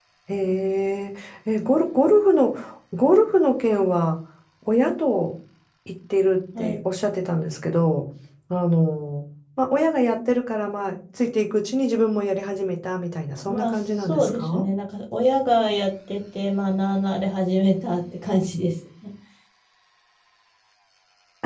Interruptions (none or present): present